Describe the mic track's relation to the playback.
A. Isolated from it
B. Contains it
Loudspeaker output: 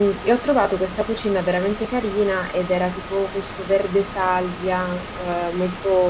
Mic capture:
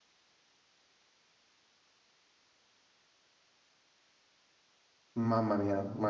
A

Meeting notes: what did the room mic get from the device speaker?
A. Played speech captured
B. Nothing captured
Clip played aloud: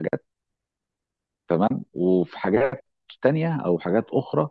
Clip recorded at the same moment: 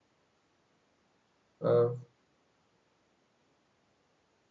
B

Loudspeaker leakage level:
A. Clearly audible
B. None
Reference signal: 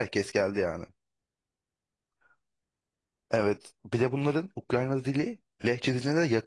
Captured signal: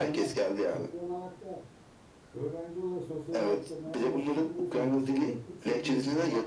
A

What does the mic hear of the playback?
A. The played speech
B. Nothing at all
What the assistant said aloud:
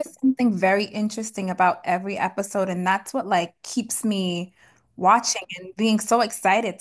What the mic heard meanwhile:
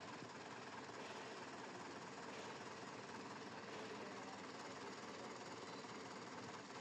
B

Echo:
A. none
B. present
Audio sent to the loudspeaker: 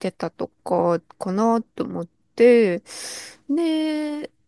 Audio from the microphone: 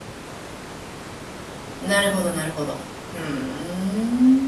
A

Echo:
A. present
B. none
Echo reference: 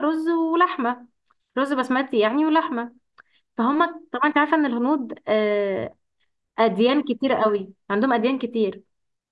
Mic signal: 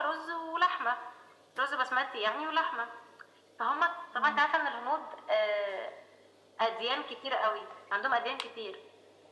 A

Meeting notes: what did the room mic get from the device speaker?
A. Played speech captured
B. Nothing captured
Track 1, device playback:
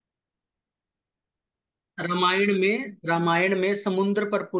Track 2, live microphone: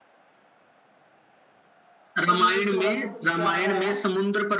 A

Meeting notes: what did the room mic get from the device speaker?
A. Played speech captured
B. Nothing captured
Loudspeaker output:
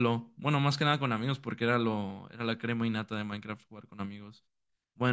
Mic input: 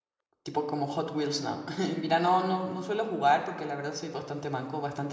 B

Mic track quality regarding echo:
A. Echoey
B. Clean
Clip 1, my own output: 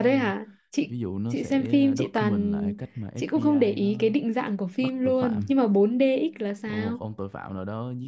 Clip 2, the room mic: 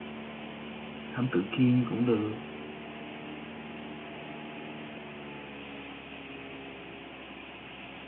B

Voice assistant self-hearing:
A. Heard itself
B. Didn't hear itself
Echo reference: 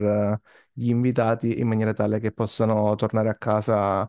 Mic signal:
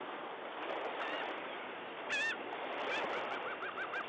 B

